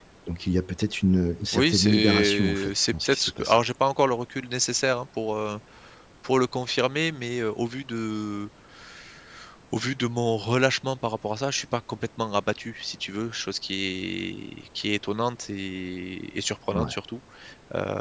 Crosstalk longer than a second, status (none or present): present